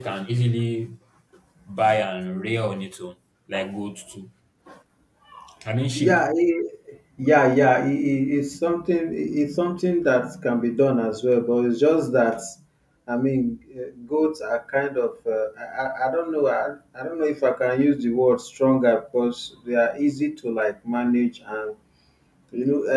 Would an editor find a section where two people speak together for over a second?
No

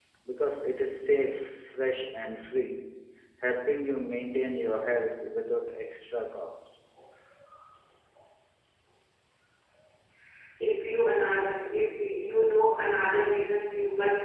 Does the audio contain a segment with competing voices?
No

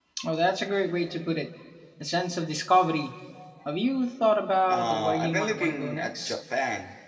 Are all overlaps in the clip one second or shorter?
No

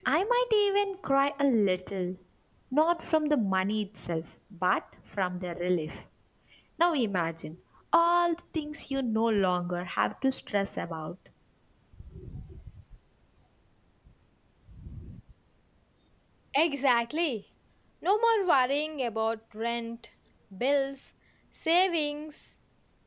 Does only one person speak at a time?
Yes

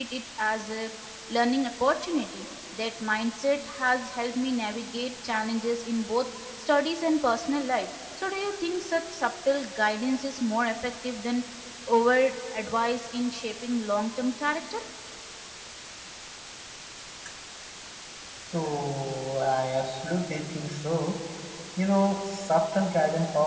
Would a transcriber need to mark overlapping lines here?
No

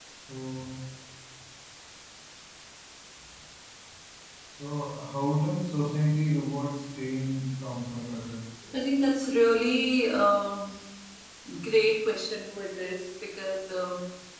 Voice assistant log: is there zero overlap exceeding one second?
Yes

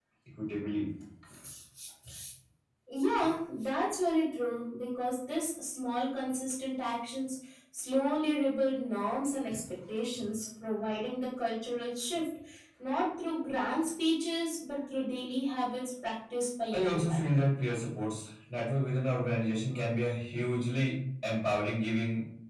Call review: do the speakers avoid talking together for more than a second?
Yes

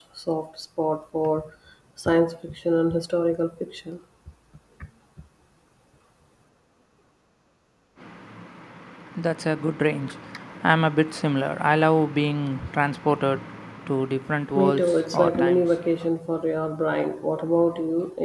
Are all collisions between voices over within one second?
No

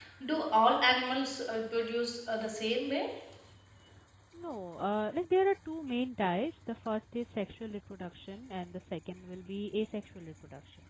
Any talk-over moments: No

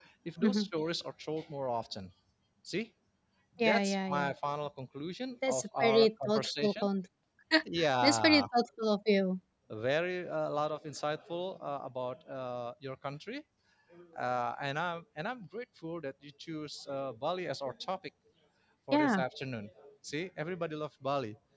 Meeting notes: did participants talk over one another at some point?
Yes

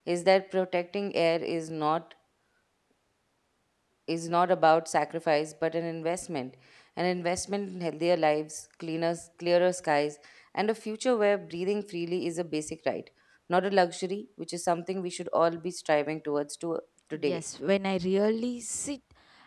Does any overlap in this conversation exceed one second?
No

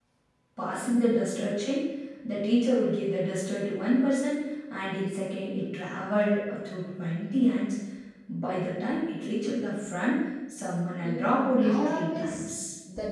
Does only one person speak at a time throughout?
No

